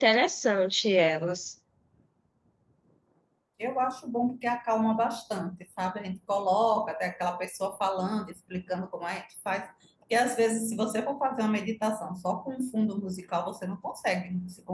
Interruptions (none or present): none